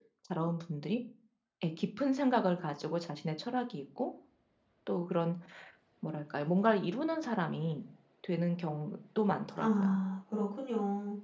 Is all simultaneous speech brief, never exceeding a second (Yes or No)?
Yes